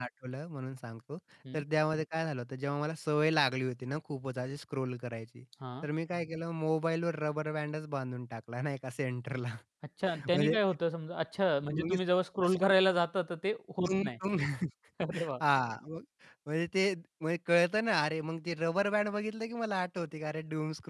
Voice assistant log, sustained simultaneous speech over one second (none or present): none